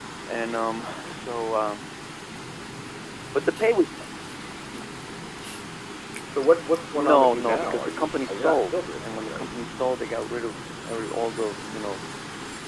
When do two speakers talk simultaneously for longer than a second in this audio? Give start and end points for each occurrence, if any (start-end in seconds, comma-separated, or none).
6.9-9.5